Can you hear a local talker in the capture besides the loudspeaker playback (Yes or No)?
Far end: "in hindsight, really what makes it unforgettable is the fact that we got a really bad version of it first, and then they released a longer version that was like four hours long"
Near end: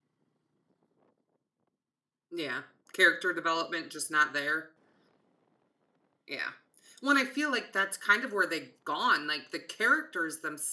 Yes